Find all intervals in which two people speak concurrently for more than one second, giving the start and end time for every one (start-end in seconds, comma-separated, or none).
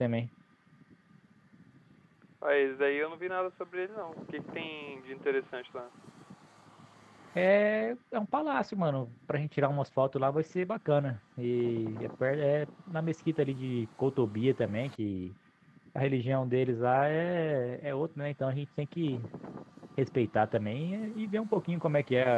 none